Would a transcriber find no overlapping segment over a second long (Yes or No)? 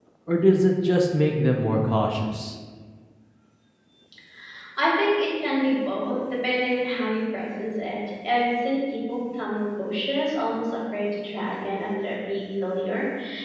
Yes